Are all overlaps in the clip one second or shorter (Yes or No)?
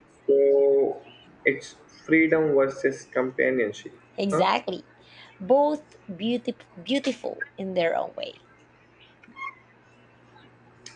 Yes